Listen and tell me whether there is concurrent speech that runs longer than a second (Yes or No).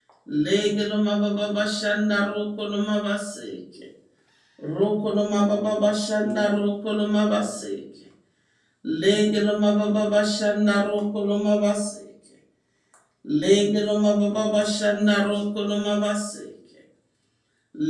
No